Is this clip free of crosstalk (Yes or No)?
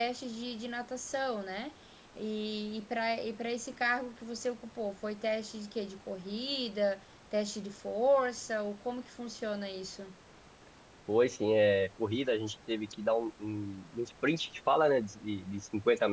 Yes